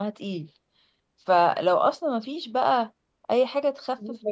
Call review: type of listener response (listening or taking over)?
listening